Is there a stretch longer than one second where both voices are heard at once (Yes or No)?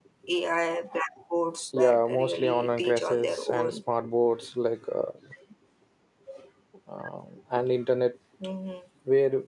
Yes